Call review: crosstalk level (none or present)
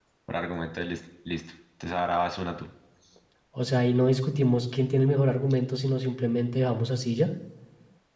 none